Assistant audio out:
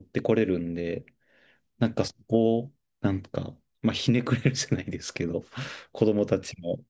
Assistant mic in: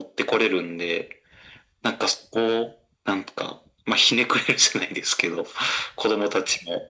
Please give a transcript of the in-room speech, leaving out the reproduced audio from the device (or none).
none